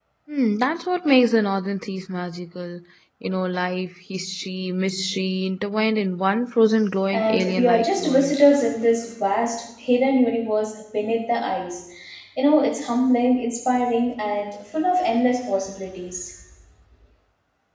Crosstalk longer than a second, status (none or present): present